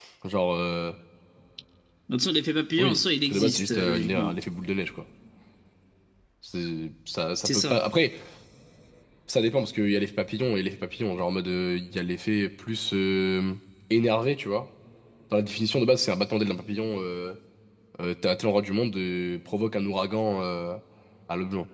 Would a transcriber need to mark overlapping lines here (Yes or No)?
Yes